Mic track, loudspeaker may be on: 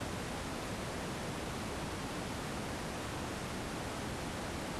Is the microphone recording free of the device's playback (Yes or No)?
Yes